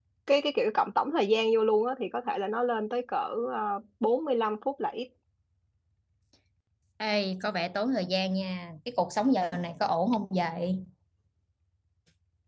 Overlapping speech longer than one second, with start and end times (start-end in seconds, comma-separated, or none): none